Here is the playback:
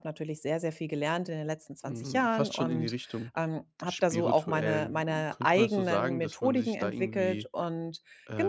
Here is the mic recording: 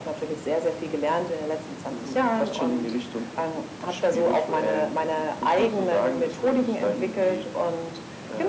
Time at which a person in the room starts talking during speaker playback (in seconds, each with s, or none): none